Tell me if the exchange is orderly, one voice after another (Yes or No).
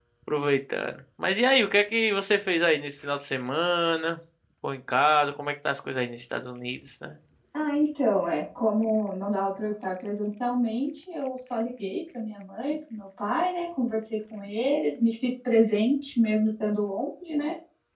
Yes